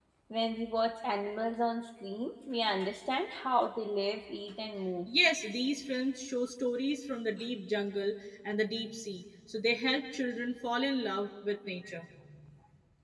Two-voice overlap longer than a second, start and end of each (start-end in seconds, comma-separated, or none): none